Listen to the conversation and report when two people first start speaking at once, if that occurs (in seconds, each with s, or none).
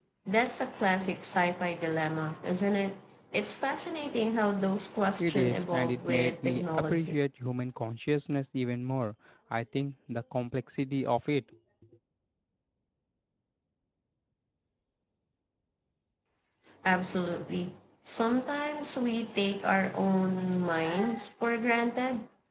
5.2 s